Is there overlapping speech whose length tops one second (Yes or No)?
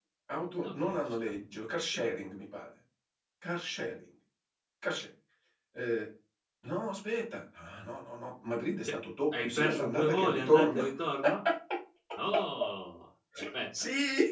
Yes